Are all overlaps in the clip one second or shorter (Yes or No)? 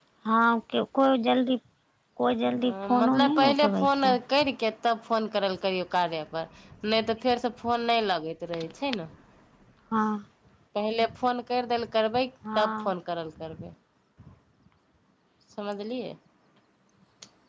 No